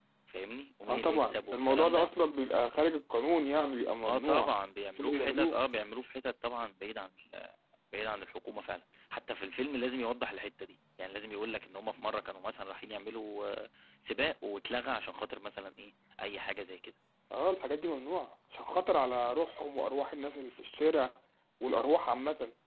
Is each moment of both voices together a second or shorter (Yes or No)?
No